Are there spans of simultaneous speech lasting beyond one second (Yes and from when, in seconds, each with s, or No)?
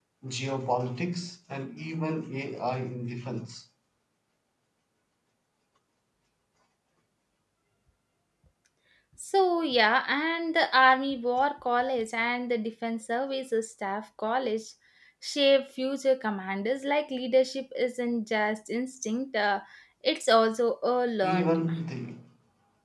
No